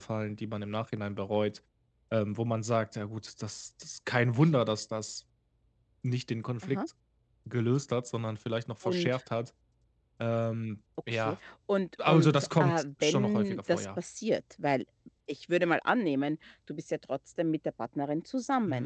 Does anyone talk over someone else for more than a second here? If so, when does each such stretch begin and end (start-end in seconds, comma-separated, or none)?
12.1-14.0